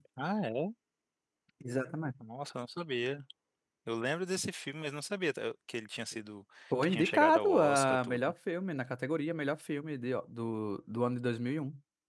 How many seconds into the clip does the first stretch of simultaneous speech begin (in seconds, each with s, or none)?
6.7 s